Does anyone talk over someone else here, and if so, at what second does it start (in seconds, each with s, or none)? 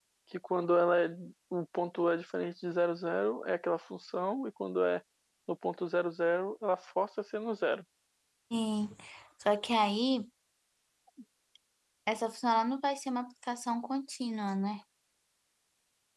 none